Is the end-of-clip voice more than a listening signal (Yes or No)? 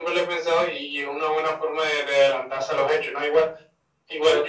No